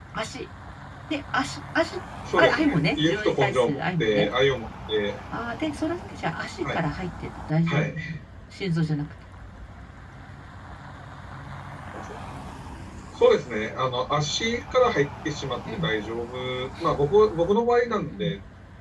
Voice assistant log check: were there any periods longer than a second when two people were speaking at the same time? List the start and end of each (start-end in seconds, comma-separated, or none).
2.4-4.3